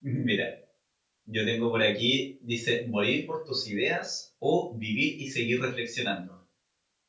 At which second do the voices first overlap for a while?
none

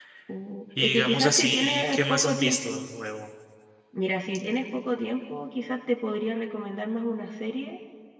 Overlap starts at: 0.8 s

